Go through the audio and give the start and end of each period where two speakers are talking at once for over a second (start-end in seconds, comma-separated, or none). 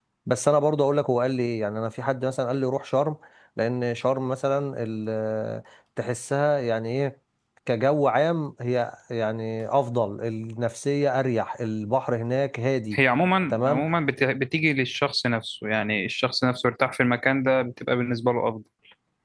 none